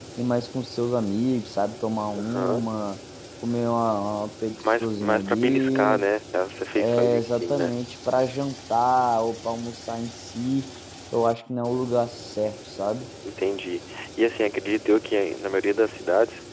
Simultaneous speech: Yes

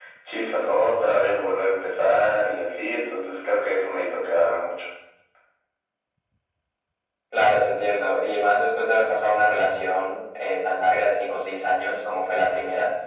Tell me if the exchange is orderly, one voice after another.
Yes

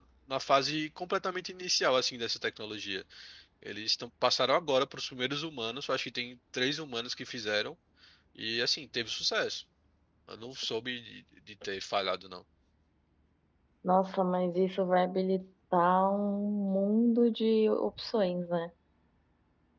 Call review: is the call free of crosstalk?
Yes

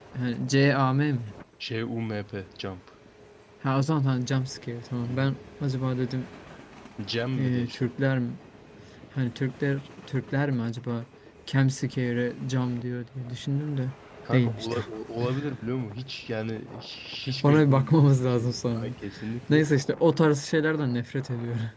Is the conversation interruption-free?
No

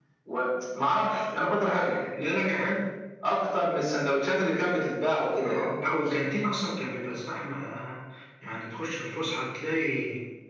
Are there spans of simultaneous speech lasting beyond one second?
No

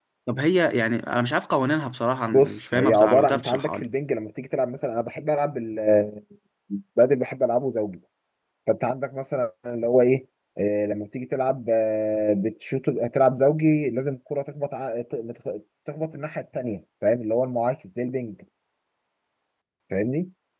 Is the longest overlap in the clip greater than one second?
Yes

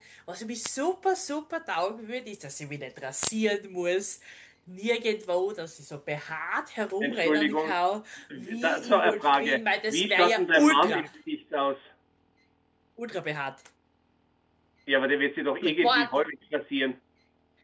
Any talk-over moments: Yes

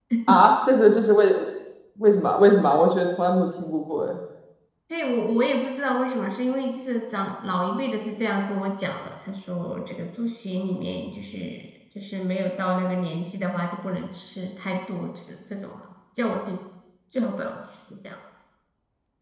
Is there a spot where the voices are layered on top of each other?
No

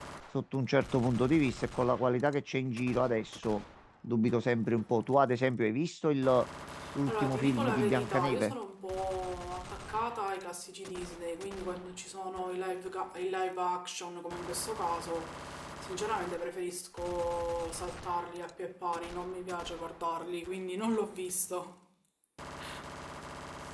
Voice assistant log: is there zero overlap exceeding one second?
No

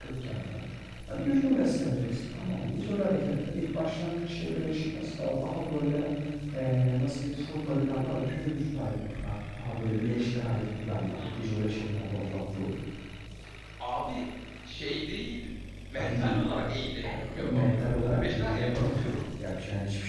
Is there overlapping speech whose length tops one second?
Yes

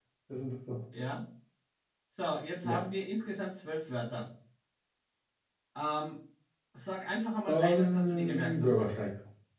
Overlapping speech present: Yes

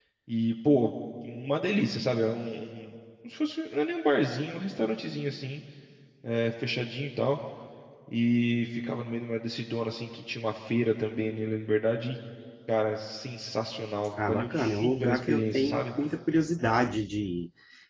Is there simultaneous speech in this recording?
Yes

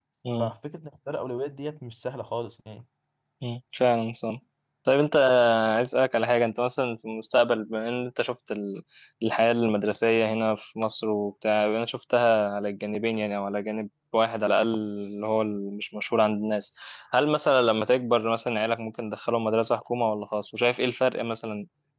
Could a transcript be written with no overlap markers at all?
Yes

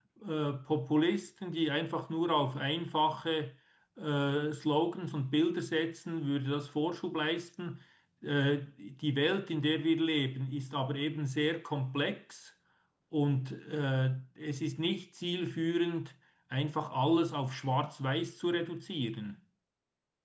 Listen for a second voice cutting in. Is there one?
No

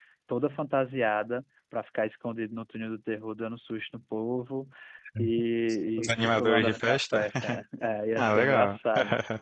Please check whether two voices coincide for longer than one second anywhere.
Yes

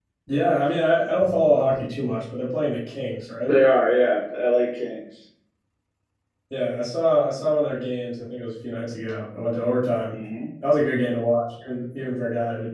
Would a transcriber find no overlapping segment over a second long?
Yes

